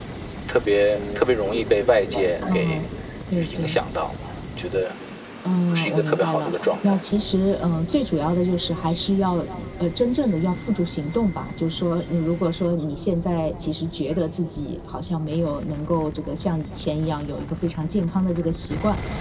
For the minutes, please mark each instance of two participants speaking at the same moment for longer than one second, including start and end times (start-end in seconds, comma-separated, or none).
5.7-7.2